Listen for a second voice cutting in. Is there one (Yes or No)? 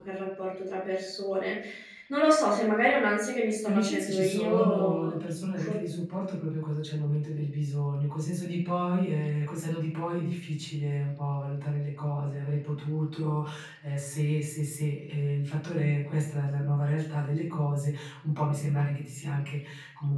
Yes